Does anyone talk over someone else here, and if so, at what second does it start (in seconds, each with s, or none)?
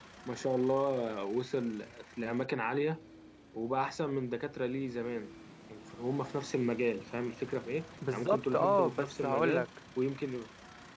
8.0 s